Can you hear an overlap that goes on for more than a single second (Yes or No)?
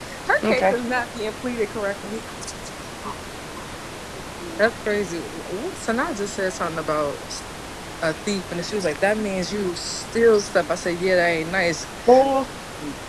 No